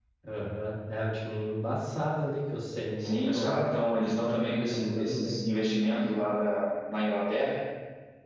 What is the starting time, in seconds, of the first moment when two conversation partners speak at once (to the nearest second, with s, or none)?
3 s